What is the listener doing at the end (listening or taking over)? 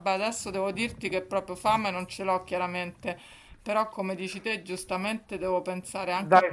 taking over